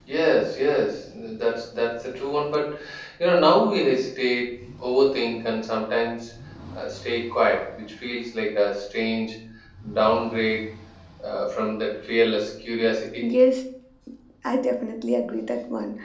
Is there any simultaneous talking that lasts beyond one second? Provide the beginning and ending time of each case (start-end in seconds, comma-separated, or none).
none